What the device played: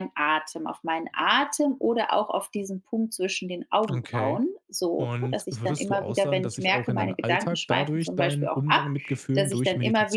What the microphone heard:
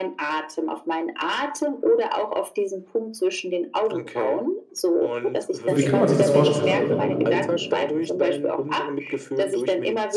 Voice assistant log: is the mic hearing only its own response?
No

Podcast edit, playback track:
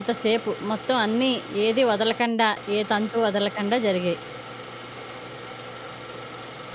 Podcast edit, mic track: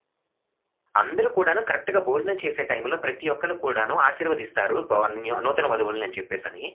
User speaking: Yes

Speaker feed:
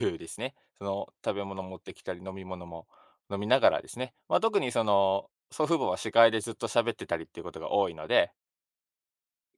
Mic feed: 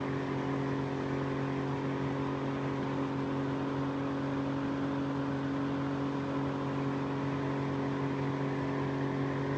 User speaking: No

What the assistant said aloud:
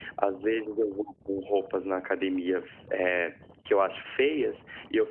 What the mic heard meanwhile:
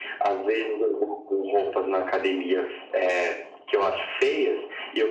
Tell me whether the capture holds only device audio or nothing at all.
Yes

